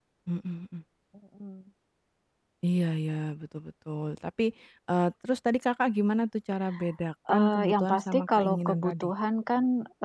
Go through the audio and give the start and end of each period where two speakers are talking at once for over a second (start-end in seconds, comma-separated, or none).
7.3-9.1